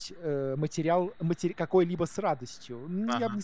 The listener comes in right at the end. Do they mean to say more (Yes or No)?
No